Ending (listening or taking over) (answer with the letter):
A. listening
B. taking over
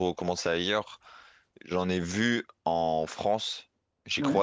A